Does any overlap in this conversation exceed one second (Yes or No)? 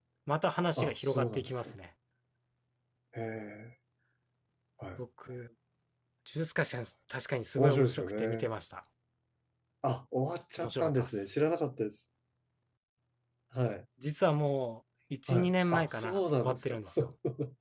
Yes